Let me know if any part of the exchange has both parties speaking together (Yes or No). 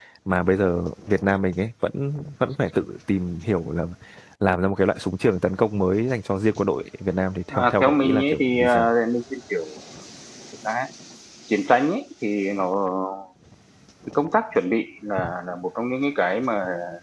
Yes